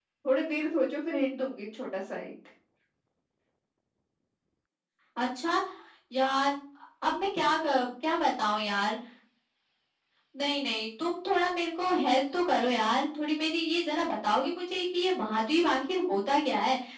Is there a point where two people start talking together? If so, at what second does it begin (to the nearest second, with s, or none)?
none